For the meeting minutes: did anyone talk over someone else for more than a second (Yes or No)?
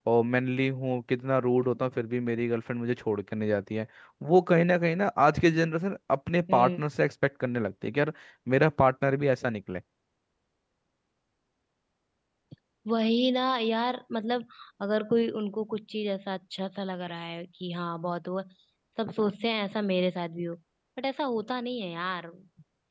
No